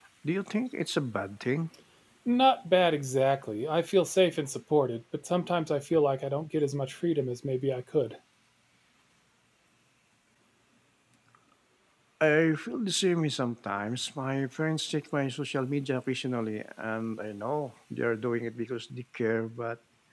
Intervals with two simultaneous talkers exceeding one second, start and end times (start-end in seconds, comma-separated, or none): none